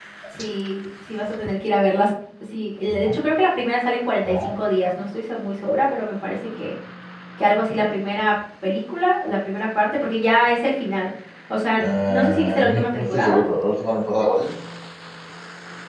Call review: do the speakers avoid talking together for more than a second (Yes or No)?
No